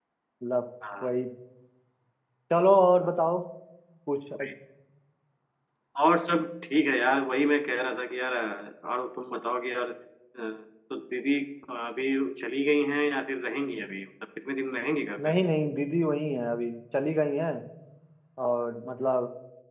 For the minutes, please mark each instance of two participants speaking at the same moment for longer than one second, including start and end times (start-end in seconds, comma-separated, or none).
none